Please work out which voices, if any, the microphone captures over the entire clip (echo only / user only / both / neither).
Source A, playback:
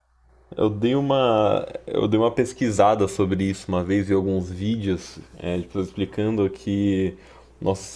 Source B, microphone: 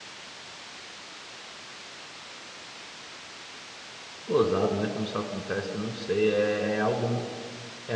user only